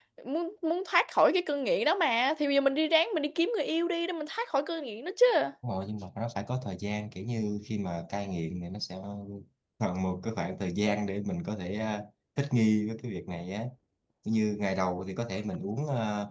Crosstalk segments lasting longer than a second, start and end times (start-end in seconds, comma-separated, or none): none